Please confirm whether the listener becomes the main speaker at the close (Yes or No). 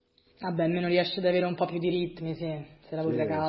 Yes